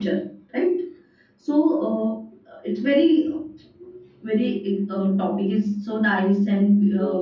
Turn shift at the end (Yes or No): Yes